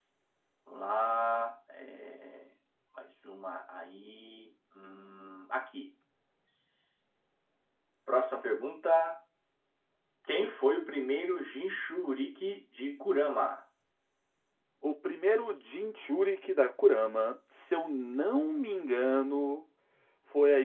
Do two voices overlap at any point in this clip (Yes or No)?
No